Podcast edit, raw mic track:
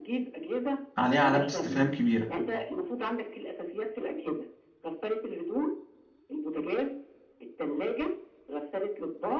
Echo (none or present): present